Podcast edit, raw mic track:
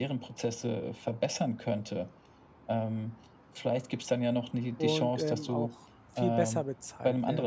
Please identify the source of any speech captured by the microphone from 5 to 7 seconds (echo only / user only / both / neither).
both